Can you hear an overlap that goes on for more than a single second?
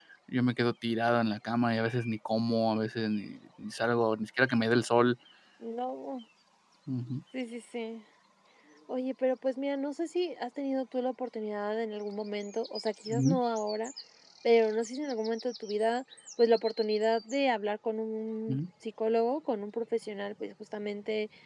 No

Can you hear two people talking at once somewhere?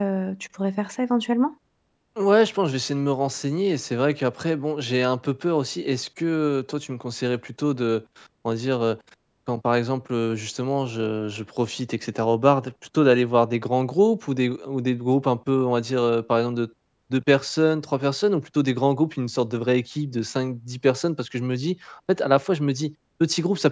No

